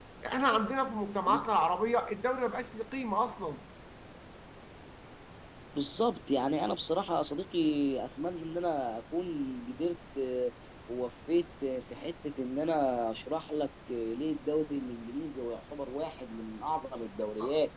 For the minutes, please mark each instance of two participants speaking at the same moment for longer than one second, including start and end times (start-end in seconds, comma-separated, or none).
none